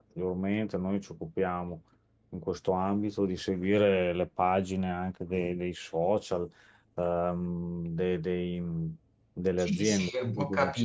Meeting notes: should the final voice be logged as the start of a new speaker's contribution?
Yes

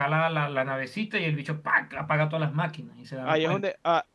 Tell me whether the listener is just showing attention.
No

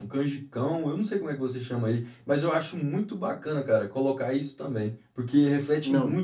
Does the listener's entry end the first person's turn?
No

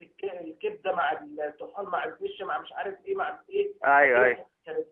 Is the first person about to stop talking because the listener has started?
No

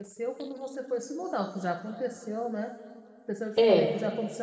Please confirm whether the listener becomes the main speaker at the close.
No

